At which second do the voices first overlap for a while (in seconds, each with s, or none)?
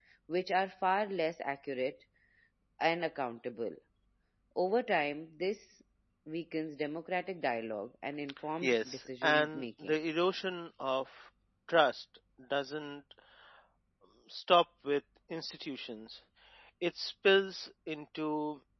8.6 s